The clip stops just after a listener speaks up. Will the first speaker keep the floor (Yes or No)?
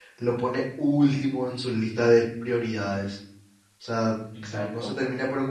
Yes